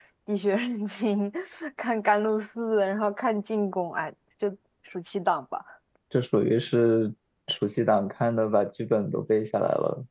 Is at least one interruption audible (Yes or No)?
No